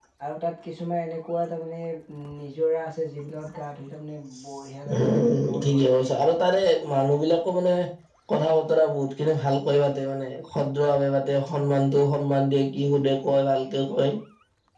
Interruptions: present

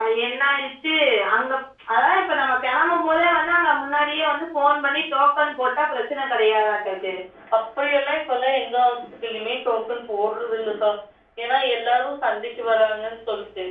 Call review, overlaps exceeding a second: none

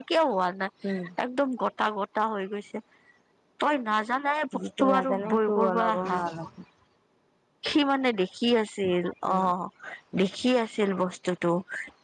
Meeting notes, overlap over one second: present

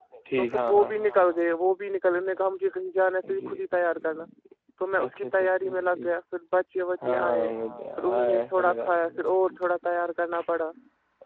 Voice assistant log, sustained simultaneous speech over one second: present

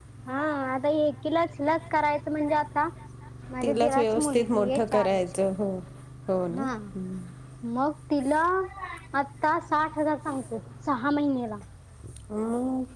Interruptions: present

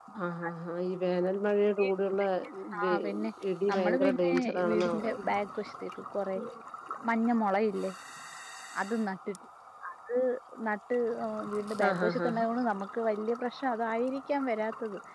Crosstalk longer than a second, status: present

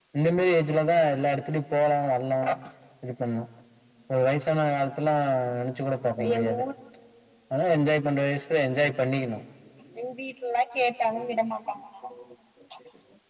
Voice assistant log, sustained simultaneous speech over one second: none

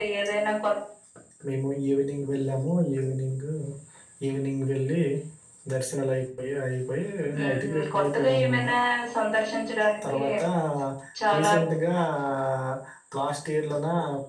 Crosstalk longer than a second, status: present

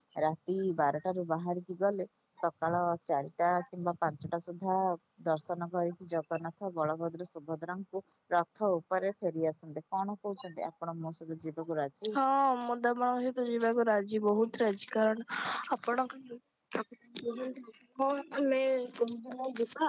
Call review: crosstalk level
none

